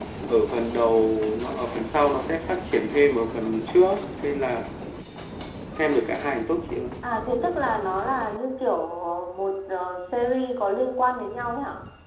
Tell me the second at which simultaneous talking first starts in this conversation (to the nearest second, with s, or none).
none